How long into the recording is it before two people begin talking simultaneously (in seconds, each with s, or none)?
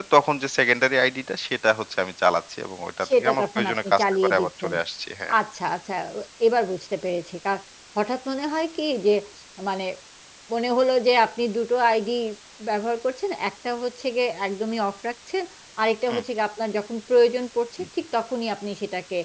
3.0 s